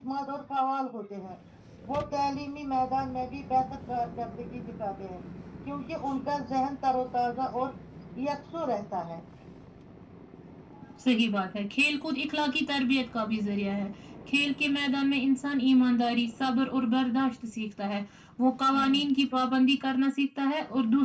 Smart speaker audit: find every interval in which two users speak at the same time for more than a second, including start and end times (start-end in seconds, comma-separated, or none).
none